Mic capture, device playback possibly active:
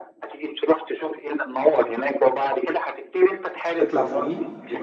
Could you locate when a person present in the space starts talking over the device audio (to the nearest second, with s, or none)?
4 s